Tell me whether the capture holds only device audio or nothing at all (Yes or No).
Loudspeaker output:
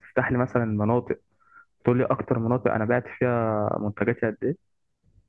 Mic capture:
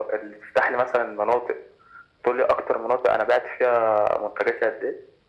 Yes